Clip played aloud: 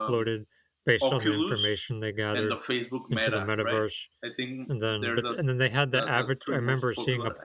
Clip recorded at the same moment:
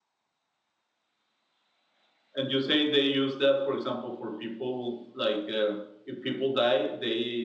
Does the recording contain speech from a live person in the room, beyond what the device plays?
Yes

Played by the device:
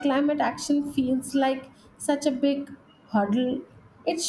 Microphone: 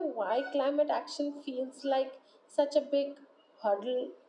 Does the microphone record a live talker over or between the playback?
No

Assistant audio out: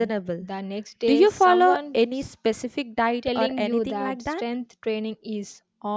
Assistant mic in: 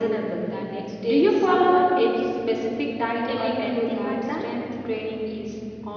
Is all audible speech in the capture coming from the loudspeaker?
Yes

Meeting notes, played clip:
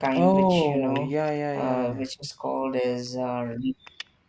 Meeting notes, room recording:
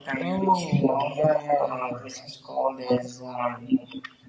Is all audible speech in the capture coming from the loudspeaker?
Yes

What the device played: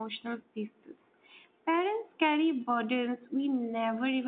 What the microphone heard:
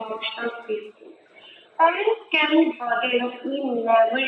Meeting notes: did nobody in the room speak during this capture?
Yes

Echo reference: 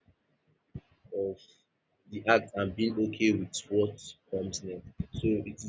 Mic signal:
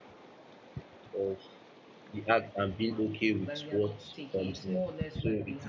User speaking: Yes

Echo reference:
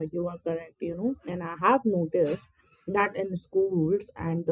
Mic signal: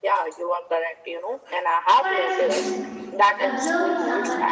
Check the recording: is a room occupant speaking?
Yes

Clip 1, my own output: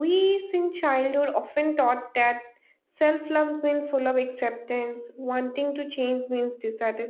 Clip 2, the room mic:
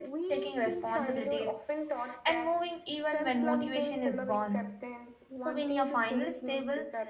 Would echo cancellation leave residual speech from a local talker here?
Yes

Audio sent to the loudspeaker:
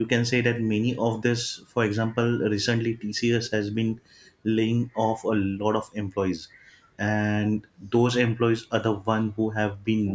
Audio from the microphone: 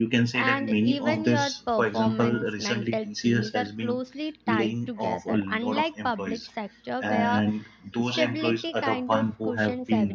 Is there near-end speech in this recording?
Yes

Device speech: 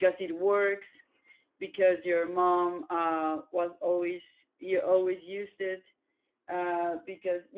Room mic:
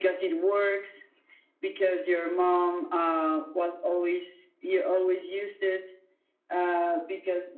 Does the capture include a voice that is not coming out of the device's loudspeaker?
No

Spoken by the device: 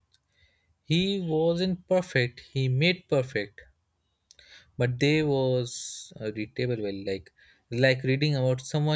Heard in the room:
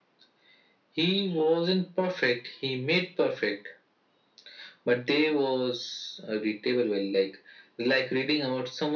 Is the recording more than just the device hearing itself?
No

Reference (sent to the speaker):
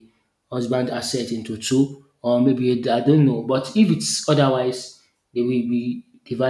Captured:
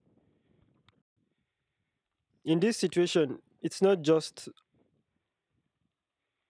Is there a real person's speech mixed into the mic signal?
Yes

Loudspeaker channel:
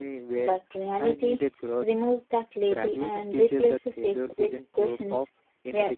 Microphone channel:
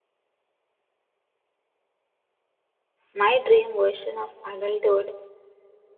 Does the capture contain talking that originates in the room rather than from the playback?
Yes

